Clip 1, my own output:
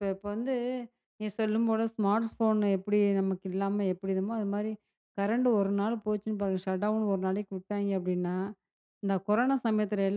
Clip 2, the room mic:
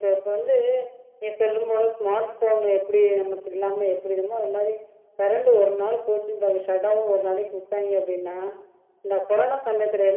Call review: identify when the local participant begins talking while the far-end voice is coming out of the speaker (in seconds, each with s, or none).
none